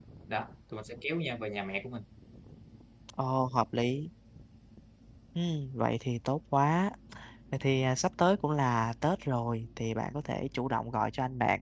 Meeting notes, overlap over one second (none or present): none